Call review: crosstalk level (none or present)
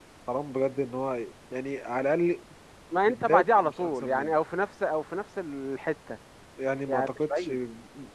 present